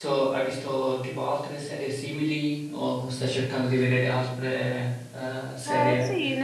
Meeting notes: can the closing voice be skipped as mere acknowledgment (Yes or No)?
No